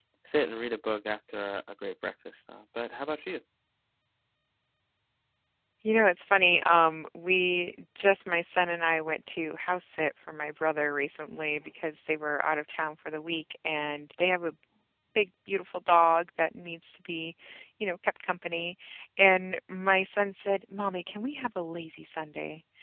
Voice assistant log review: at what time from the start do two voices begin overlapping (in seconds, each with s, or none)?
none